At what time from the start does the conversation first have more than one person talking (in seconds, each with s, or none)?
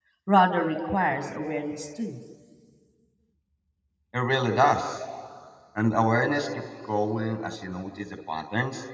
none